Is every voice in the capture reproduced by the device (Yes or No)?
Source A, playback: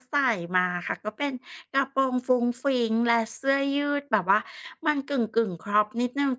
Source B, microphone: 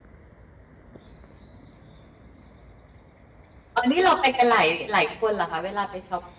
No